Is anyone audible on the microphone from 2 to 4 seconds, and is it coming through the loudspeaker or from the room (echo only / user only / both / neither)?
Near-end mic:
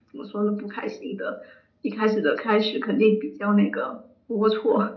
echo only